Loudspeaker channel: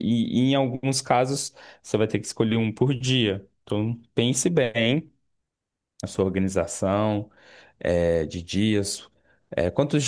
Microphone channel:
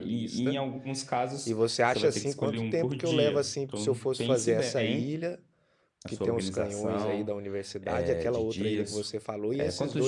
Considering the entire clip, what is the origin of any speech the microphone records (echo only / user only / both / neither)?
both